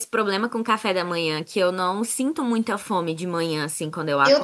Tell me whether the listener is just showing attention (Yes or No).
No